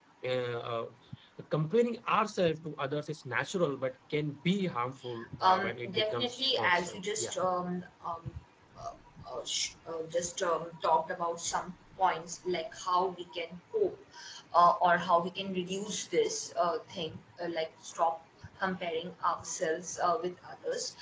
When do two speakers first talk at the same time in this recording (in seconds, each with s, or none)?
5.2 s